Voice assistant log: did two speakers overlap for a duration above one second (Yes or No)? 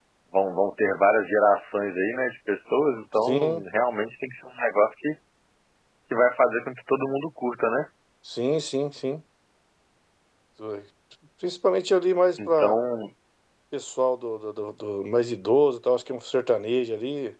No